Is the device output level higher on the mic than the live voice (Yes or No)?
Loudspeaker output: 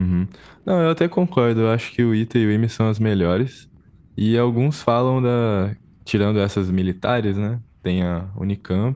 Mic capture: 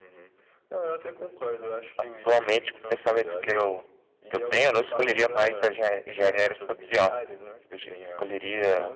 No